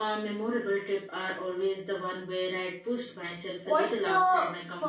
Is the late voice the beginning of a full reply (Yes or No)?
Yes